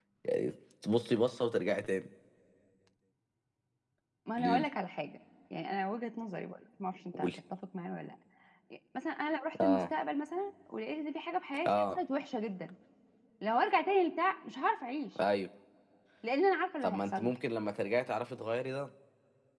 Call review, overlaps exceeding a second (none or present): none